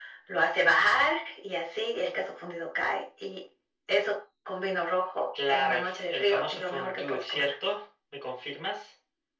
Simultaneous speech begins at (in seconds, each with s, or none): 5.4 s